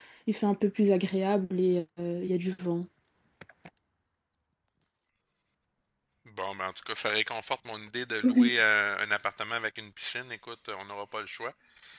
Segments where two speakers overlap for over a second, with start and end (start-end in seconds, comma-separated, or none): none